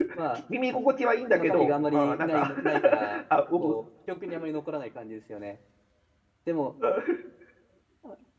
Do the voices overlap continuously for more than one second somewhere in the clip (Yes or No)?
Yes